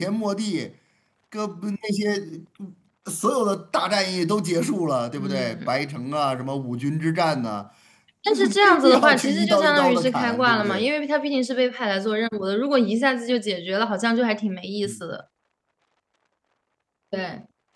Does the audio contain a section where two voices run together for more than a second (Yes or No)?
Yes